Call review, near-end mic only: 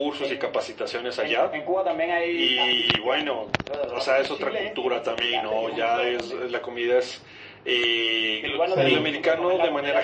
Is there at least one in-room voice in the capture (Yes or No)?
Yes